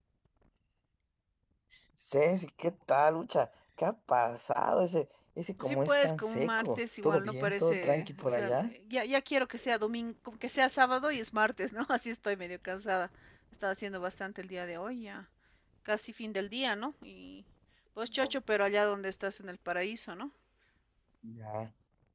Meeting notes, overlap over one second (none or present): present